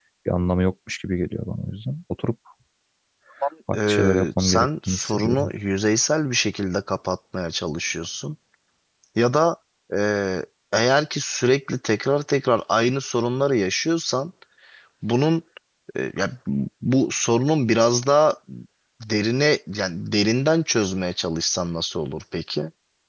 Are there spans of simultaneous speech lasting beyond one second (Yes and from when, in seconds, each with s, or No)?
Yes, from 3.8 s